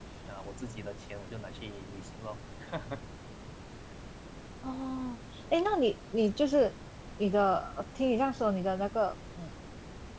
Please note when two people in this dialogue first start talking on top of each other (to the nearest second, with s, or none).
none